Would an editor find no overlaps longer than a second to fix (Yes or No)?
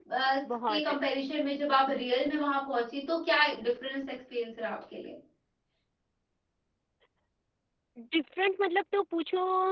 Yes